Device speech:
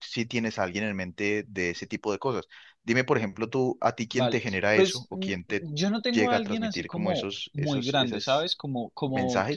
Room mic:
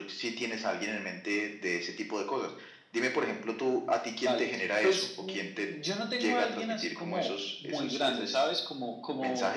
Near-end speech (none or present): none